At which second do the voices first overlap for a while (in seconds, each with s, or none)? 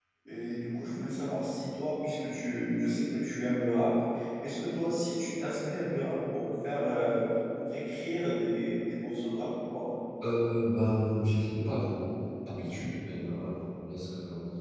none